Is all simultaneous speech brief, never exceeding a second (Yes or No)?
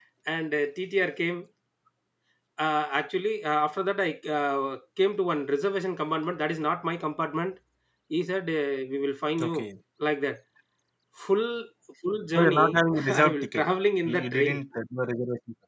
No